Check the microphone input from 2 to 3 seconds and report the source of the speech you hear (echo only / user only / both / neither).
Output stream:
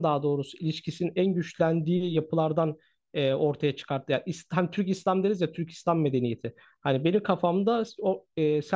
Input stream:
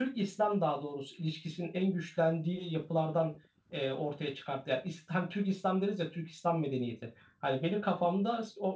echo only